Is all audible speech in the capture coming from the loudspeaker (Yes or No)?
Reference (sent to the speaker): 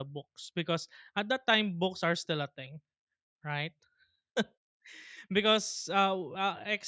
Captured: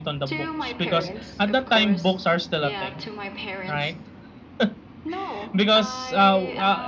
No